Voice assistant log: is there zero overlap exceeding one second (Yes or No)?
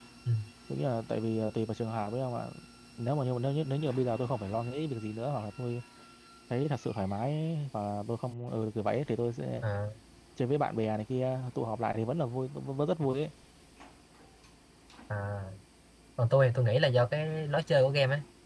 Yes